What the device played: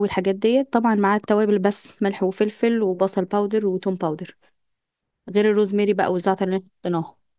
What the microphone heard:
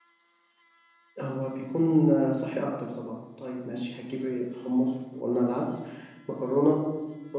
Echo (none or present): none